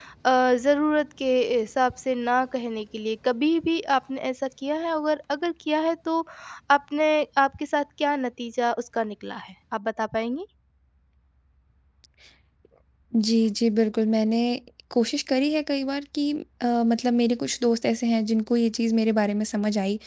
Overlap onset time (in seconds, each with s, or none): none